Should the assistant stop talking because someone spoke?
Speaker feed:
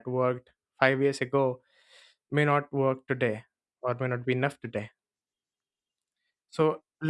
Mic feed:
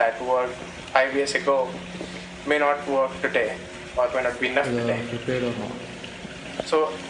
Yes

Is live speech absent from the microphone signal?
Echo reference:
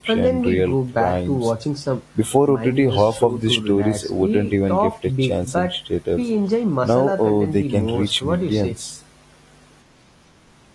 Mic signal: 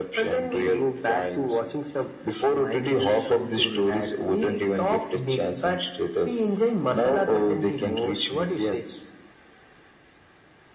Yes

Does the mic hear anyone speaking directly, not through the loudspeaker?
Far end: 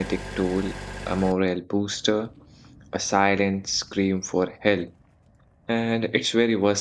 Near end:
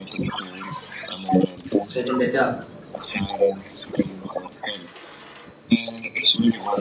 Yes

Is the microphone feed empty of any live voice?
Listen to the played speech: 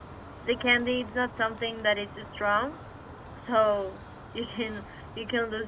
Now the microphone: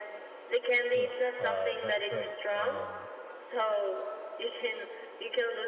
No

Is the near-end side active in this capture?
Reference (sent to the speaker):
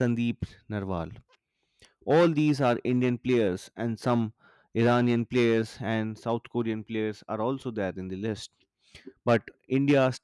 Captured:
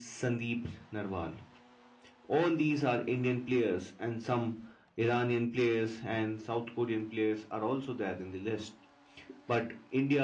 No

